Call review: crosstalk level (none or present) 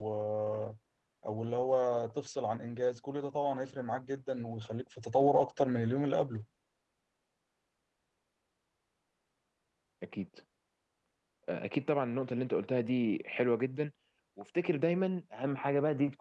none